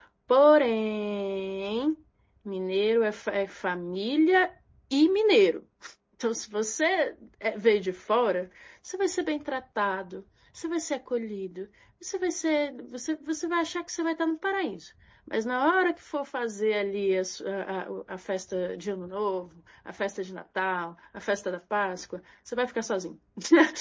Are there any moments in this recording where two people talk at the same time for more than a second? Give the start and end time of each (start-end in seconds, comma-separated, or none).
none